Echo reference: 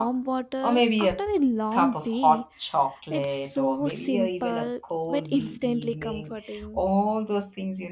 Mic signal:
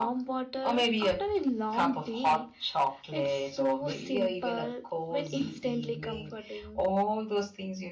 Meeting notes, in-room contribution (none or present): none